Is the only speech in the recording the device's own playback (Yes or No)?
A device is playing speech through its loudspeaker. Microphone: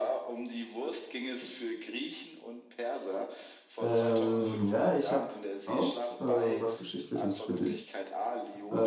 No